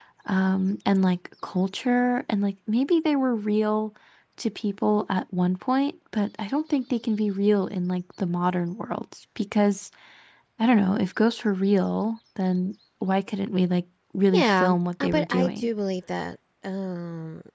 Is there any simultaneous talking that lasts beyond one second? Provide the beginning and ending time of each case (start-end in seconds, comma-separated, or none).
14.3-15.7